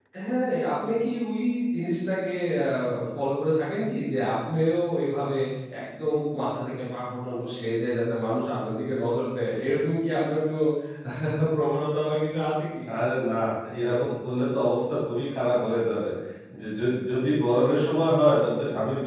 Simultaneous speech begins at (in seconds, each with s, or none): none